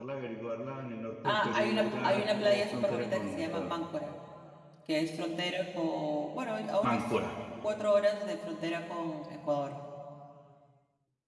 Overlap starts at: 1.2 s

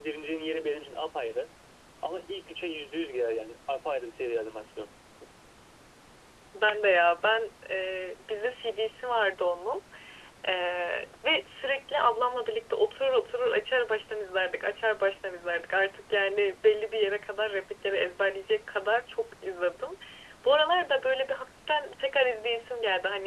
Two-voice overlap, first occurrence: none

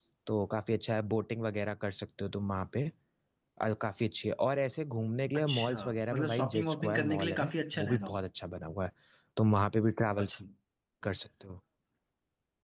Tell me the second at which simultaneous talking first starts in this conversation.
5.3 s

